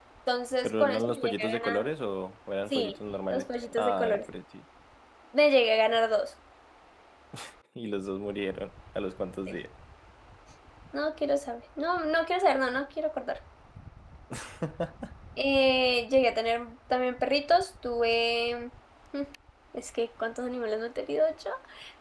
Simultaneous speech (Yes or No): Yes